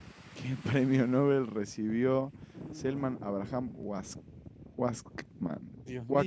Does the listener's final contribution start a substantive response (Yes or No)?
Yes